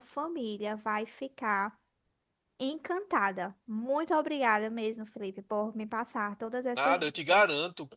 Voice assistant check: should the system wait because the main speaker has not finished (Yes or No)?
No